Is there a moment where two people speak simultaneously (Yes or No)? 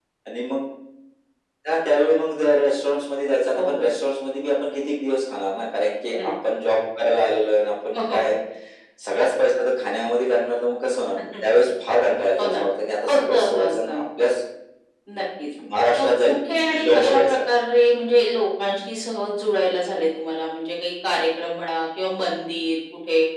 Yes